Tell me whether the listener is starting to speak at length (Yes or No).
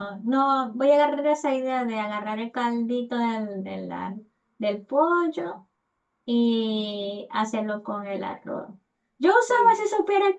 No